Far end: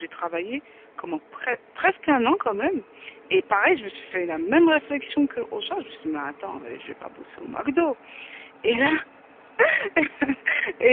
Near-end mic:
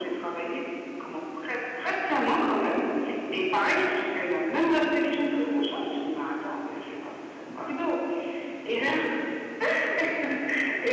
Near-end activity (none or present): none